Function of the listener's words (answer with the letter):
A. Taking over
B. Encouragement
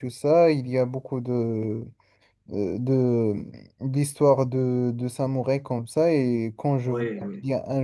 B